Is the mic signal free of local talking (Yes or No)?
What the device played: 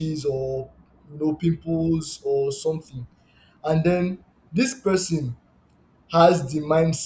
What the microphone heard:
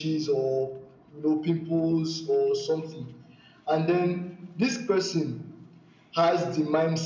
Yes